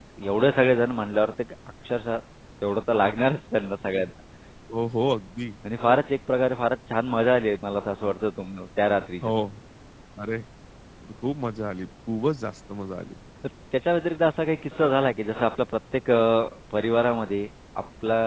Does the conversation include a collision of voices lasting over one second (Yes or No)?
No